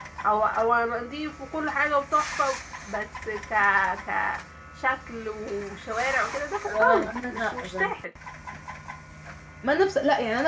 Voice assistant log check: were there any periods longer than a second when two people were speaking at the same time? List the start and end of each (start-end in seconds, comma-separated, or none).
6.6-7.9